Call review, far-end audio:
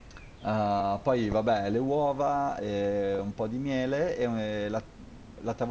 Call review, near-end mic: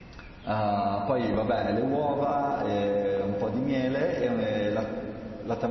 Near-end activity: none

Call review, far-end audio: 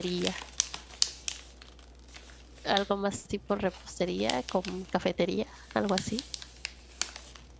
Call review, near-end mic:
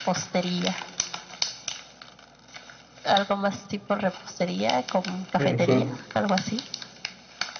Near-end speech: present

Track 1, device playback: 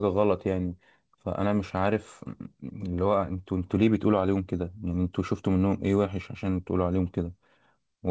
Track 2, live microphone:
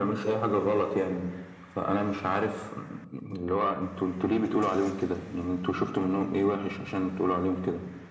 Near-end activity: none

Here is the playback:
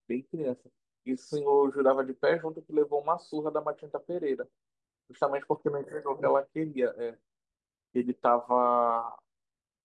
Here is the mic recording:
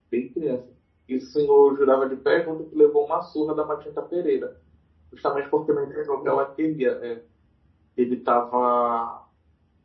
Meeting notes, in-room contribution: none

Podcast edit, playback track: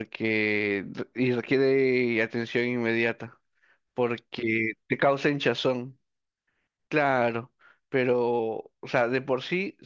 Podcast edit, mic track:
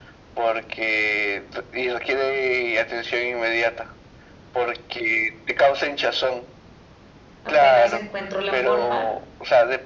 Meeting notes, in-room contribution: present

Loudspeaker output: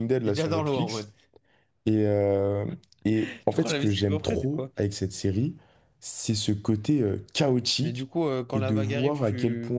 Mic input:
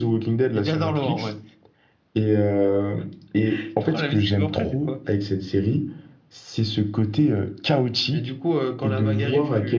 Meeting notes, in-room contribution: none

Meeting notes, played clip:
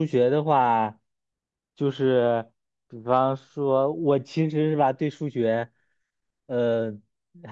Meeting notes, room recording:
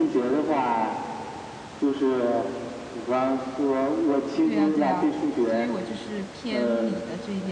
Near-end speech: present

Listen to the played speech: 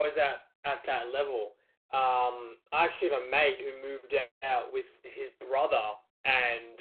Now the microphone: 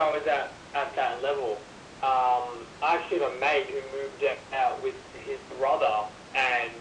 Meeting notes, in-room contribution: none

